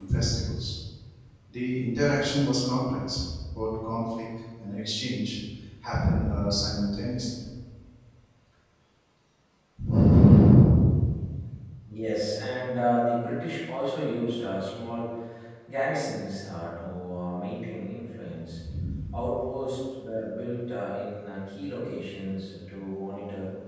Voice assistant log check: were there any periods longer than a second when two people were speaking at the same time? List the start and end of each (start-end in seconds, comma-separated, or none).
none